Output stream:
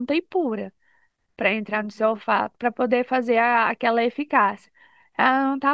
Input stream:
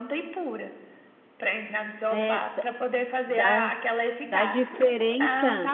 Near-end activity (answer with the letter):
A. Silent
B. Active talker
B